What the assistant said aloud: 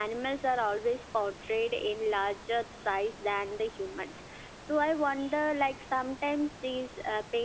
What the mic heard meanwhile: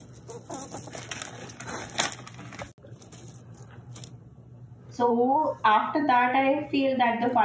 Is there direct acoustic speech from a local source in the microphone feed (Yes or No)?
Yes